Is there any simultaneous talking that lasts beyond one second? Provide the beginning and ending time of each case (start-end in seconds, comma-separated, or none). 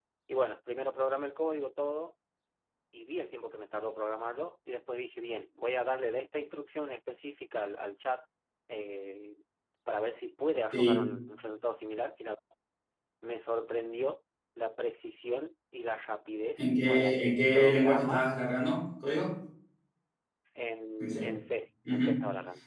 16.6-18.2